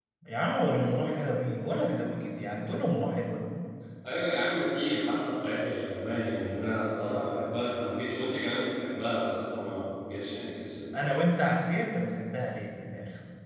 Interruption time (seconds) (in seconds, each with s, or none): none